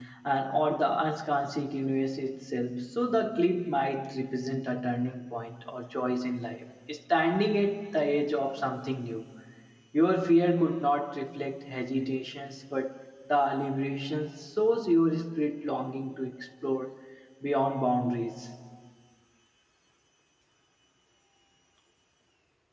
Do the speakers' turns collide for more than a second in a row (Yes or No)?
No